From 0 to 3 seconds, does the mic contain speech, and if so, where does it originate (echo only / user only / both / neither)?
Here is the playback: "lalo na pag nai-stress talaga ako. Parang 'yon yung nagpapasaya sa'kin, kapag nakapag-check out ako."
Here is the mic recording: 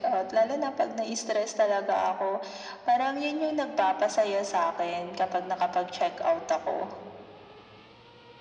echo only